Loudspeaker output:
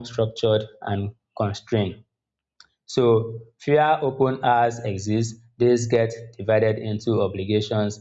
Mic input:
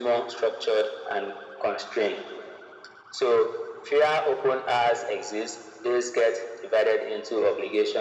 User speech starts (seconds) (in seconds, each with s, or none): none